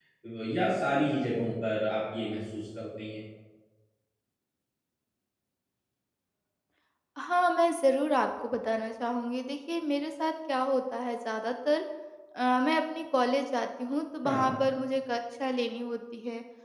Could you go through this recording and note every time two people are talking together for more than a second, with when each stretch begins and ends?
none

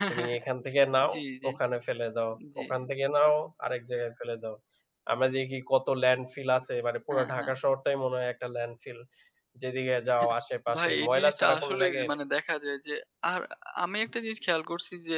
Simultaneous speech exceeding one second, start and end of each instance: 10.8-12.2

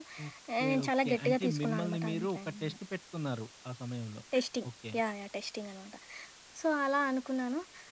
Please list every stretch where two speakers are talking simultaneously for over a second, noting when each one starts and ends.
0.6-2.8

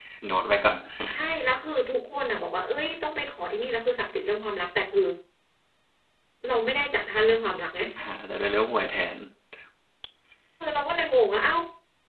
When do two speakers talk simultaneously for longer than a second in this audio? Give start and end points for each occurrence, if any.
none

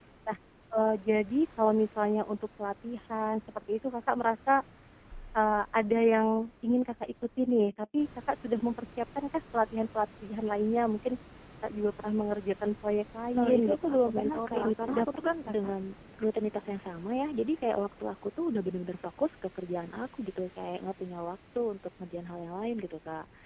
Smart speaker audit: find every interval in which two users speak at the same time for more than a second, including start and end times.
13.4-15.6

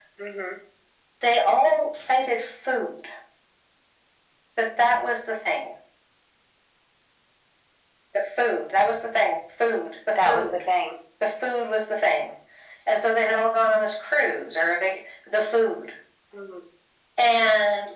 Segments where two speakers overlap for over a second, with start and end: none

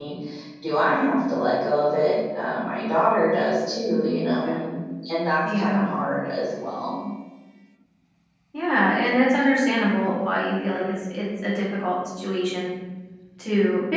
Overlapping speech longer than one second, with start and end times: none

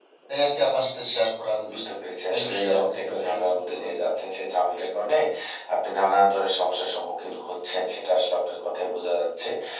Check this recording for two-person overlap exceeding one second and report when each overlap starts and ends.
2.3-4.0

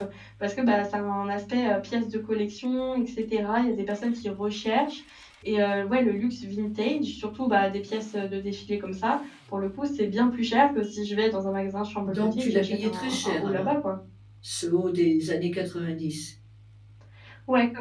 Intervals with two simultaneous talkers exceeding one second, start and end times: 12.0-13.7

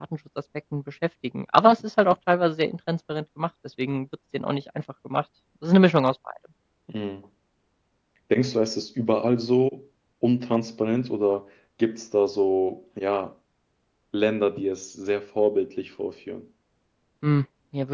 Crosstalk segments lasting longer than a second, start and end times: none

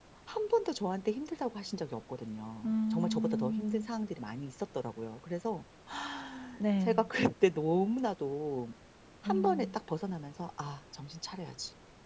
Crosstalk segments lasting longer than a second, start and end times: 2.6-3.9

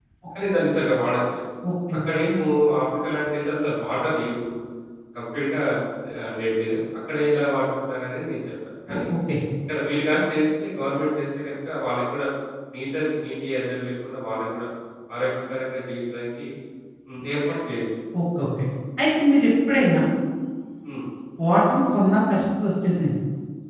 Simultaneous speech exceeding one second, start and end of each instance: none

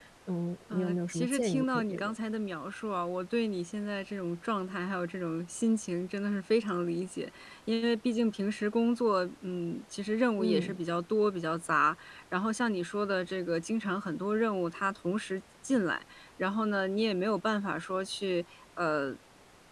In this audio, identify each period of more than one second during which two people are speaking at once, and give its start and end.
0.7-2.1

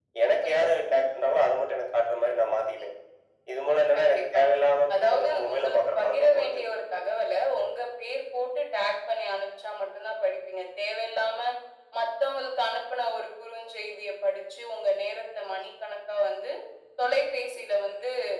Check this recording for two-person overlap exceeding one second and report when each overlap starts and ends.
5.0-6.7

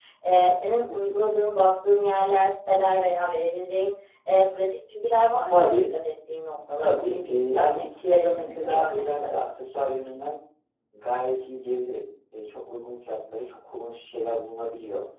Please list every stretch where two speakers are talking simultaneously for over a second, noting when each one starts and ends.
6.8-9.3

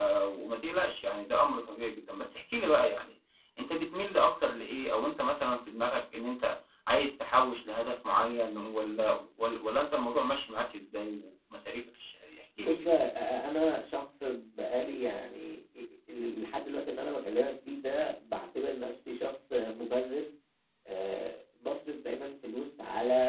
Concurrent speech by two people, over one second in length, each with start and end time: none

